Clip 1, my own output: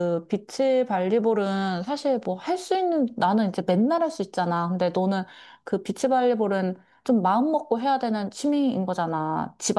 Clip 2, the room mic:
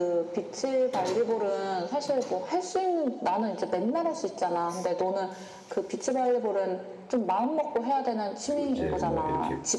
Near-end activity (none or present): present